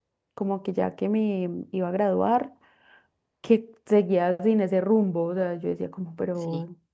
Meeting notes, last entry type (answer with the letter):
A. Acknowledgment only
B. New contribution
A